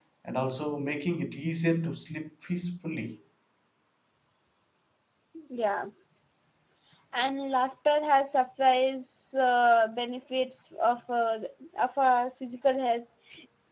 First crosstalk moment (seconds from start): none

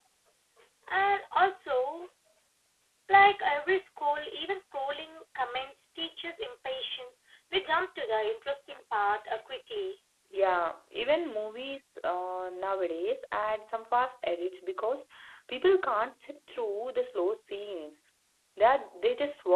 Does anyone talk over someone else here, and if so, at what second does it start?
none

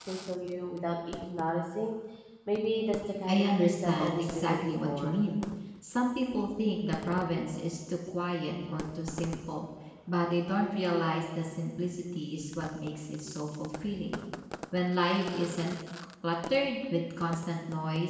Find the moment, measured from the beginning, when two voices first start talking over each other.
3.3 s

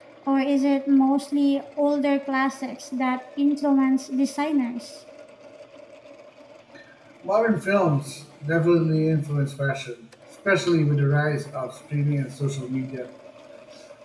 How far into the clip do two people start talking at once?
none

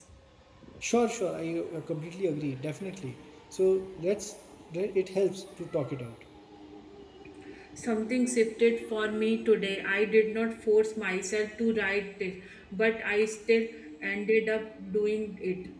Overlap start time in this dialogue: none

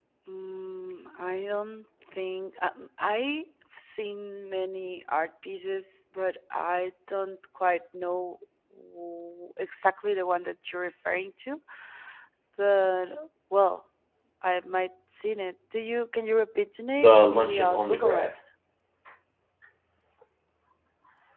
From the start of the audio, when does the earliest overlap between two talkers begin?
17.0 s

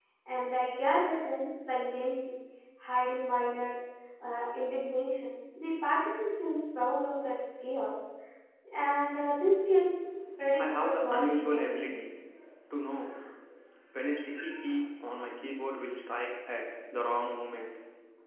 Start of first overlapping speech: 10.6 s

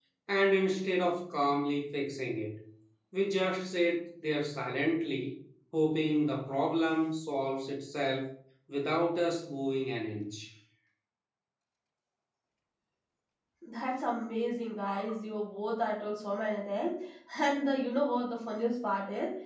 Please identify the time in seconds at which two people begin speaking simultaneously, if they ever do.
none

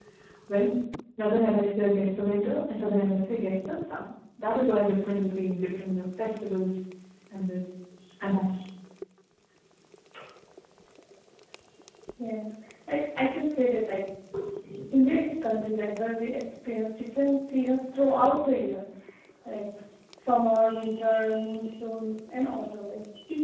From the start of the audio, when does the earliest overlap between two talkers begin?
none

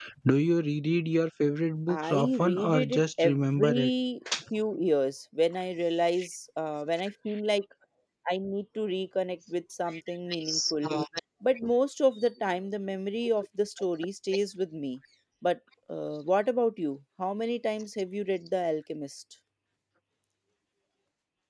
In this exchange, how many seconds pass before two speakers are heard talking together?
1.9 s

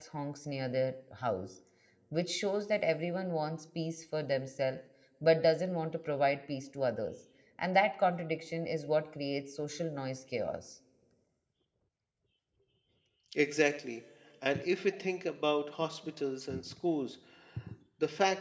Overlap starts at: none

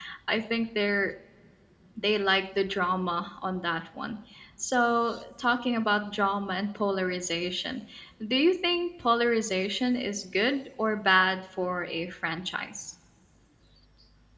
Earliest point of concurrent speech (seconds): none

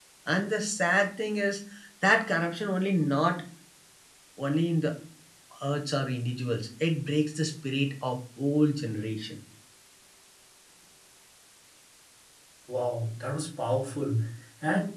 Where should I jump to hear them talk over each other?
none

